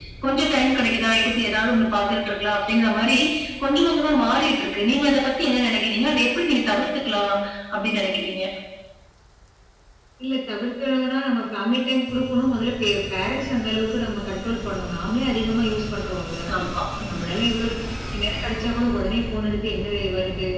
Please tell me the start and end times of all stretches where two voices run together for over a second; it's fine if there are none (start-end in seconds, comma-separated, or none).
none